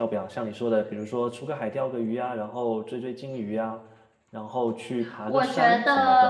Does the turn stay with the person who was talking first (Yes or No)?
No